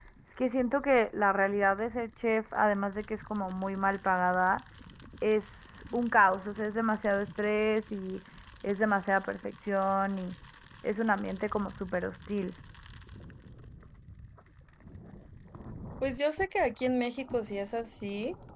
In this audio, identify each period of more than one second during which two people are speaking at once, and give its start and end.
none

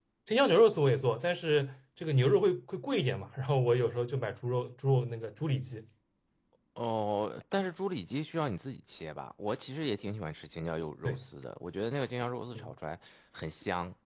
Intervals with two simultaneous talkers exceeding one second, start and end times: none

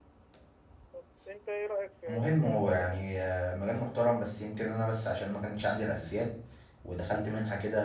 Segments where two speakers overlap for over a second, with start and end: 2.1-3.3

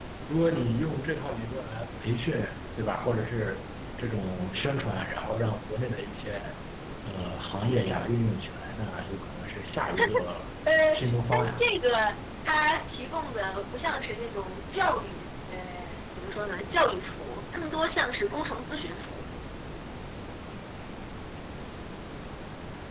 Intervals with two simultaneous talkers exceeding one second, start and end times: none

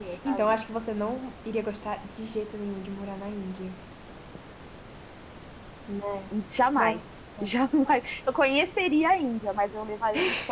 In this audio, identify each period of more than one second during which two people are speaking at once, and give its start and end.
none

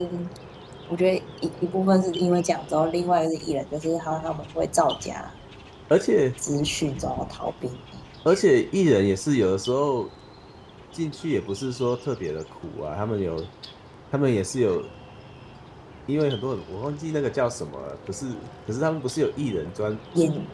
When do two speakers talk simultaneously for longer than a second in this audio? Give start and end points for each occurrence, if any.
none

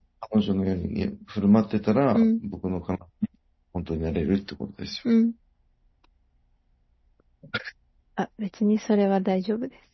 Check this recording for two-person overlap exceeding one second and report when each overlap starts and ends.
none

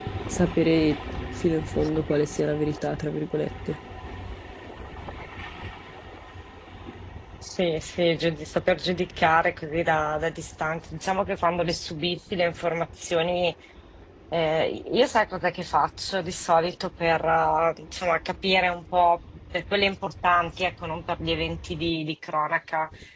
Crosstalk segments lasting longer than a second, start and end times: none

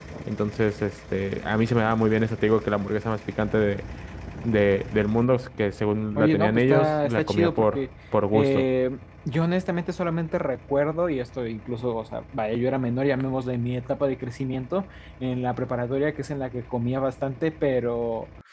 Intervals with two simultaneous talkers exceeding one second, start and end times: 6.2-7.8

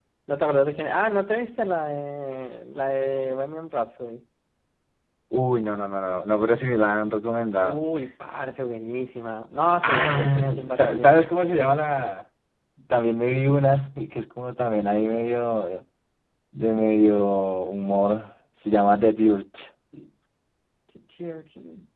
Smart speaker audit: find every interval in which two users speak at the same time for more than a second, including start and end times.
9.8-11.2

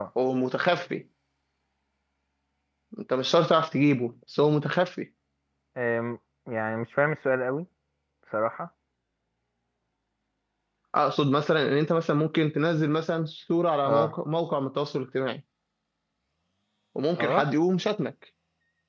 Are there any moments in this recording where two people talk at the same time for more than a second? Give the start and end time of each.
none

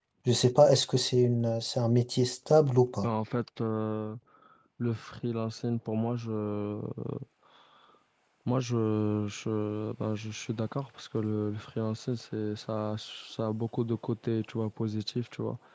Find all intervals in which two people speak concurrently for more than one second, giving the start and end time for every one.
none

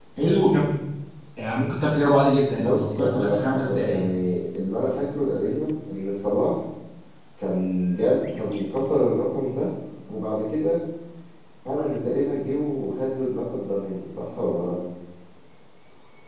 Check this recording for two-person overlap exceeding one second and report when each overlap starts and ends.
2.5-4.0

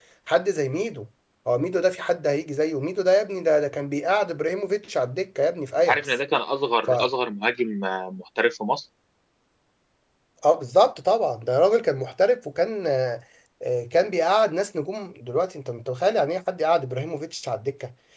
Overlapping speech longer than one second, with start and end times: none

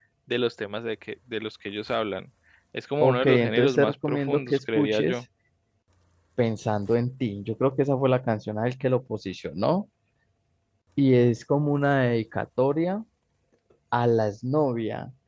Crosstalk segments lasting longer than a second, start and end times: 3.0-5.1

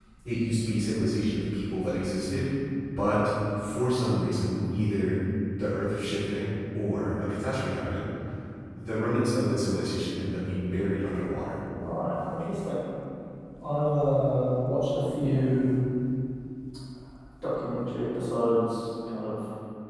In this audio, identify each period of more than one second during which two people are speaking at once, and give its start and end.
none

